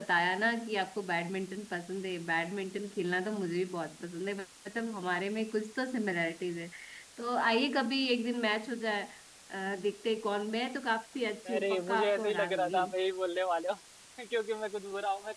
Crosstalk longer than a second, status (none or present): present